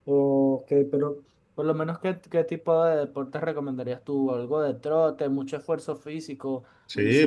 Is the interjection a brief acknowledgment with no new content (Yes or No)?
No